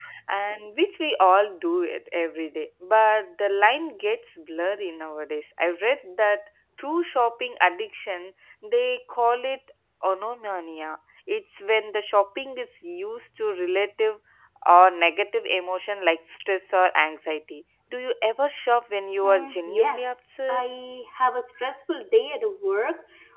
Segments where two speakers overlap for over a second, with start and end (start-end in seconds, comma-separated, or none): 19.2-20.6